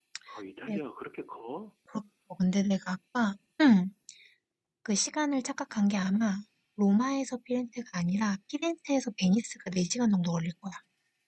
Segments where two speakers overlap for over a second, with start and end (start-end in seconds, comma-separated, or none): none